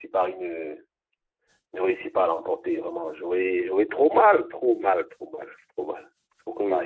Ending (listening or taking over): taking over